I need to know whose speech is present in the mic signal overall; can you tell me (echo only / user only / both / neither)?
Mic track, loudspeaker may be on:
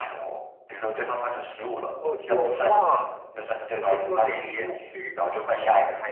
both